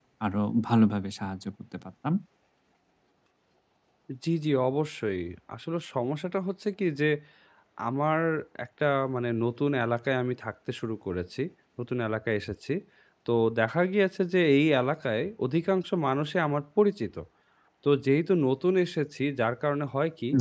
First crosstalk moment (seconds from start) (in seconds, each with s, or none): none